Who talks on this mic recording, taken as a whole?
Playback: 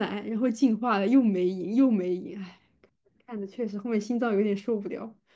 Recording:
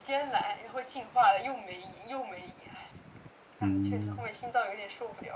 both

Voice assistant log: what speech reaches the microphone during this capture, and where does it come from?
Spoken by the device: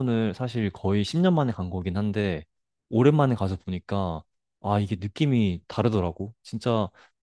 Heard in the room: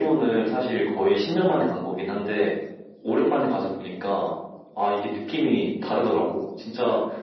echo only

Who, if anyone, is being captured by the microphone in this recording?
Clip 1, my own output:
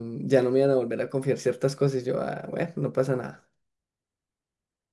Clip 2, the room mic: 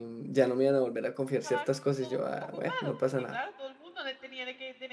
both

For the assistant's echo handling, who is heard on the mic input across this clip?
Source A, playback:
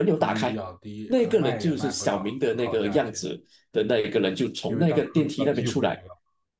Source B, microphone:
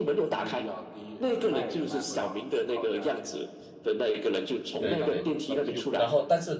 both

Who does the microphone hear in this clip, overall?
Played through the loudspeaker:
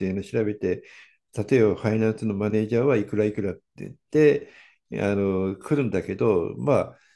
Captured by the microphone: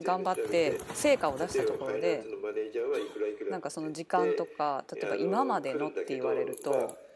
both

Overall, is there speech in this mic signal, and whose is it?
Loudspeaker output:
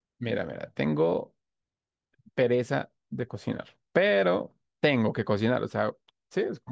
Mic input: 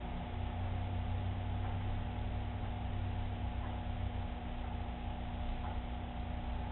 neither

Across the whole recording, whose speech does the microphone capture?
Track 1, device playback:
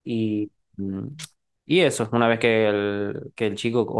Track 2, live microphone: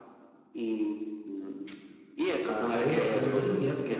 both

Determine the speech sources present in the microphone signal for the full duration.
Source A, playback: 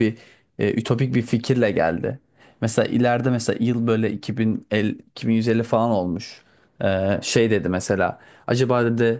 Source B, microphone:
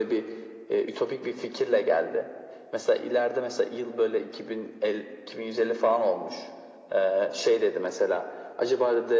echo only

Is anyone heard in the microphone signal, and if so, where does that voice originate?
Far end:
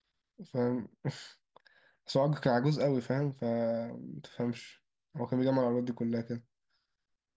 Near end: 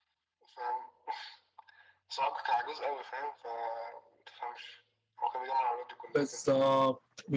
both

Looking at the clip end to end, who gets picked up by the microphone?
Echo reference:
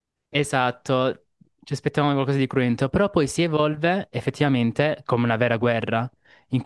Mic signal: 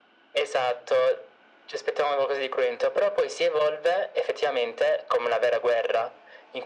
echo only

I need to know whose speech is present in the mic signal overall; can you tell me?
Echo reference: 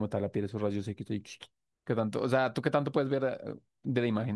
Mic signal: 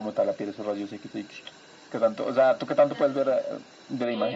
both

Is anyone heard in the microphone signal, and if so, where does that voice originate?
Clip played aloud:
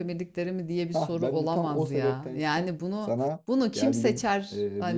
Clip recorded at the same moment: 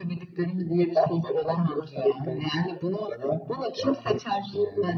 echo only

